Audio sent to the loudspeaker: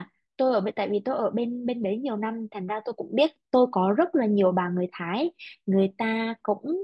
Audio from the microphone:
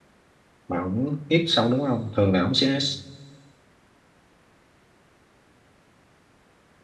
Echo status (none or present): none